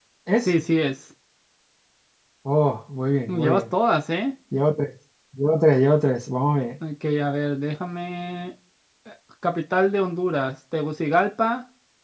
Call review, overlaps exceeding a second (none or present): none